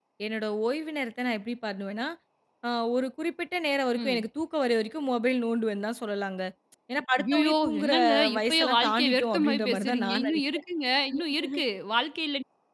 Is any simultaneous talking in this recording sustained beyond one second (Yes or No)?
Yes